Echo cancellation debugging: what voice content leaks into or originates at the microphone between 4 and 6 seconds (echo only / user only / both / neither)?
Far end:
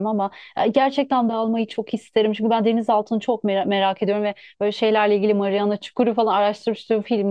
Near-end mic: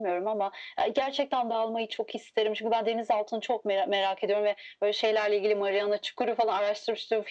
echo only